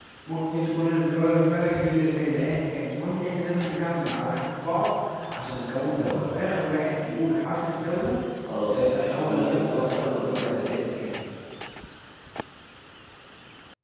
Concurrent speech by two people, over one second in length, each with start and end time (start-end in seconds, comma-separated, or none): 8.7-10.8